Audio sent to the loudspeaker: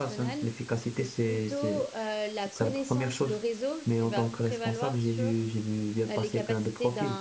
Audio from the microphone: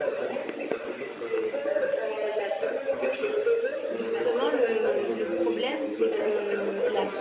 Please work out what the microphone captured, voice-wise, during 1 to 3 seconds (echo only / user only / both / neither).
echo only